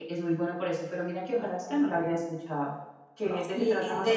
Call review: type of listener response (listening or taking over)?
taking over